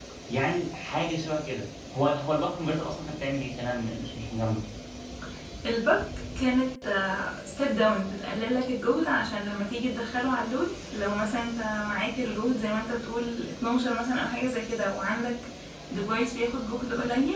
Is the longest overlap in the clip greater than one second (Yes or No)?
No